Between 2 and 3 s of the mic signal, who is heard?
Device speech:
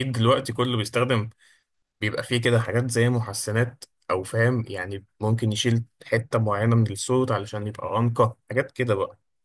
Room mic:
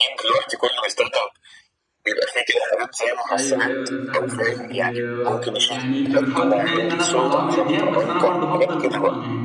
echo only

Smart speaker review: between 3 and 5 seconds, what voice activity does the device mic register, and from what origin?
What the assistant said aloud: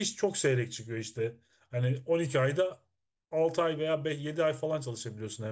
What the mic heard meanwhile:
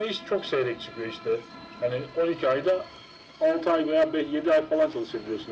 echo only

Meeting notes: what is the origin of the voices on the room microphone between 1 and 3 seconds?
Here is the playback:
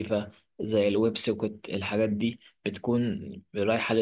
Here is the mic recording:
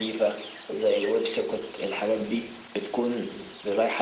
echo only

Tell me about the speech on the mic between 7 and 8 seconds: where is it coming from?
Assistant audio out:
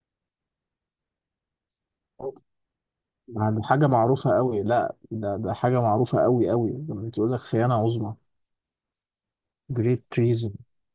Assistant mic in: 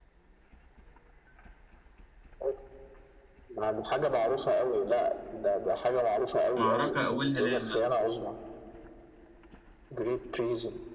both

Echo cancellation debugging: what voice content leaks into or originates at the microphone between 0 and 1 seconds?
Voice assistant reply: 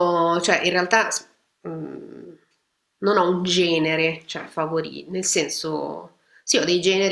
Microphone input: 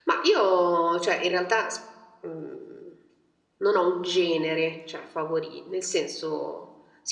echo only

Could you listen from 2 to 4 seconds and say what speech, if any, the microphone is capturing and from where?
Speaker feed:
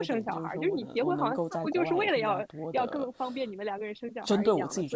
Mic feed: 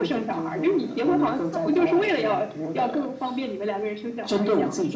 echo only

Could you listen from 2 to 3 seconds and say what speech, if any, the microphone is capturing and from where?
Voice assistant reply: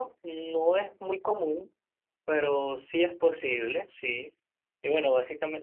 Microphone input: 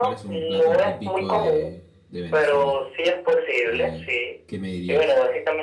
both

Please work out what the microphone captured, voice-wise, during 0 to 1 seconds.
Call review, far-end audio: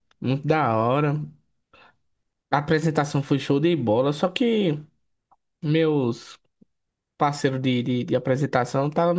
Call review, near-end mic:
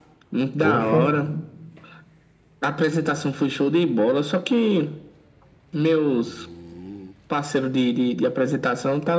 both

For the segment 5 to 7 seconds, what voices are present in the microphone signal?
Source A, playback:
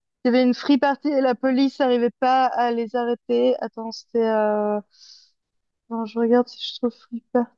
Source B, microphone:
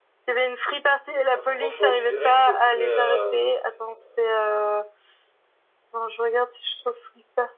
echo only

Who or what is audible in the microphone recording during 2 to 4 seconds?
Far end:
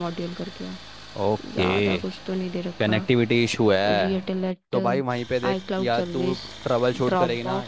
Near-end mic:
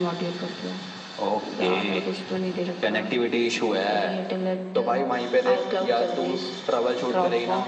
echo only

